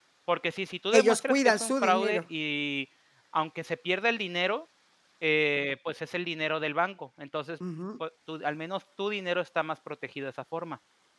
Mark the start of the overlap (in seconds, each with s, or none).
0.9 s